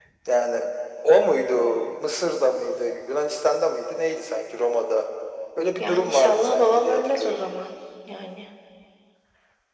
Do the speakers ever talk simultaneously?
Yes, from 5.8 s

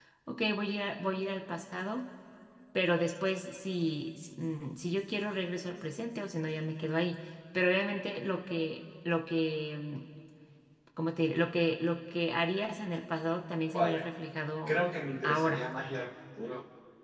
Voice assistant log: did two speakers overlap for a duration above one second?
No

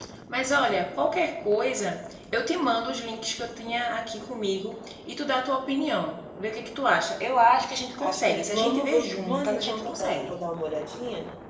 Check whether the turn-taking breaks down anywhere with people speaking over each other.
Yes, from 8.0 s

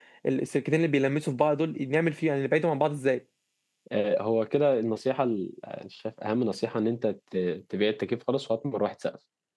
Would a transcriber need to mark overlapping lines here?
No

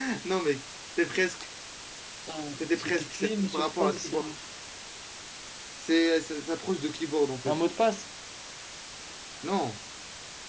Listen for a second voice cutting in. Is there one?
Yes, from 2.8 s

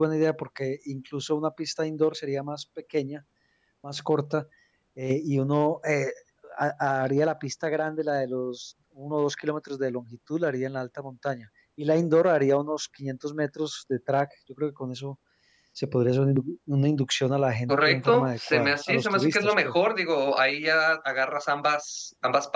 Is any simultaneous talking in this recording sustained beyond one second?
Yes, from 17.7 s

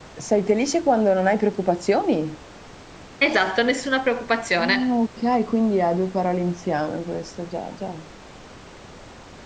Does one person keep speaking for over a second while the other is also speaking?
No

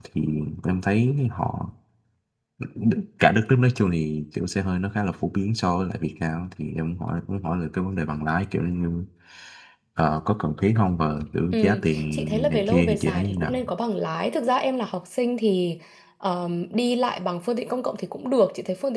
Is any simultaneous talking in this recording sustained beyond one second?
Yes, from 11.5 s

